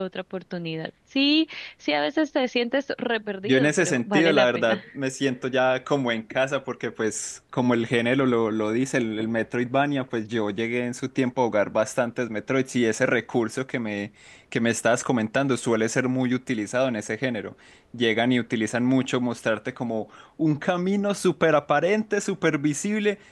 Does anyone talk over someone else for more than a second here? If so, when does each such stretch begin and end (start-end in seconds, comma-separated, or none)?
3.4-4.8